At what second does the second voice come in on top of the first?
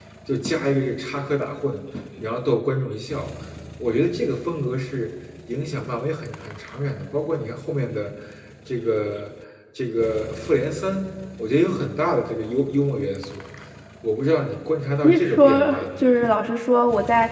15.0 s

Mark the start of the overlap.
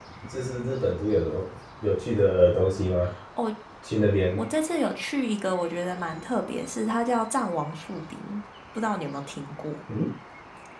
none

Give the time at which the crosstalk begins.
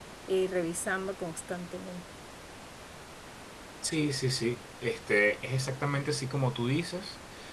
none

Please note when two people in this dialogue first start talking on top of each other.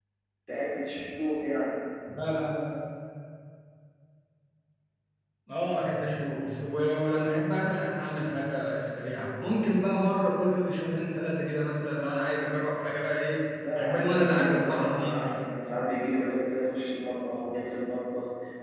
13.6 s

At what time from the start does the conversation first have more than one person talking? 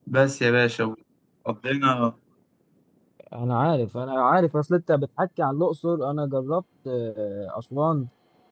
none

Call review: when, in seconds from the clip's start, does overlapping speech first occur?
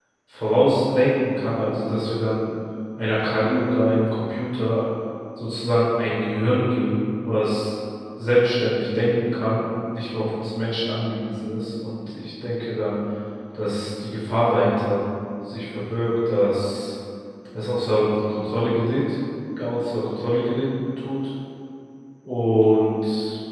none

